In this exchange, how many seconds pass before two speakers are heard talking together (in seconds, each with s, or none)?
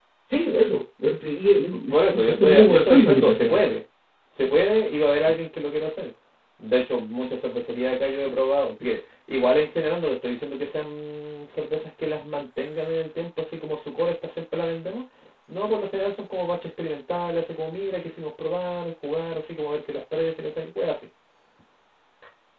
1.7 s